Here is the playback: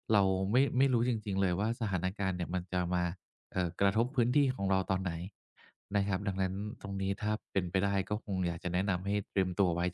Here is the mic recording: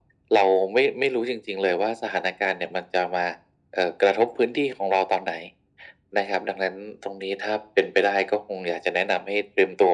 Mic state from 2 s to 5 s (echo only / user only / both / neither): echo only